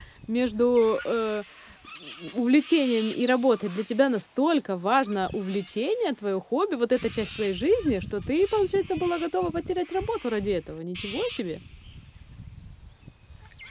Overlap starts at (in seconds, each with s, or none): none